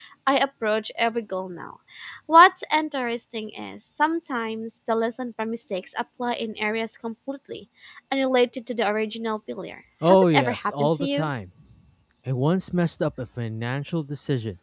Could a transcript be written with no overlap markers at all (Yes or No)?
No